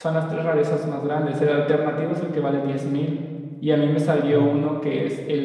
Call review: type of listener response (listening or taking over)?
listening